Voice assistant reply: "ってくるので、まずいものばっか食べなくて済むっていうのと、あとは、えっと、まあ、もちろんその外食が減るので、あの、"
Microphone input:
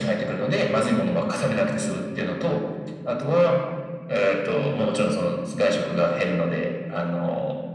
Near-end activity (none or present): none